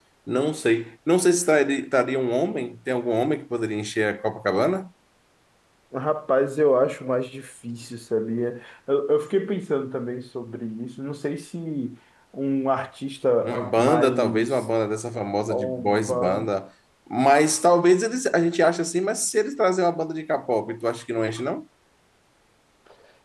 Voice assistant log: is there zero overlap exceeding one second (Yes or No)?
No